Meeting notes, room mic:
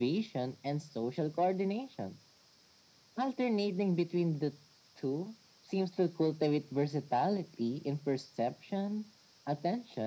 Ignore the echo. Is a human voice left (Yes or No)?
No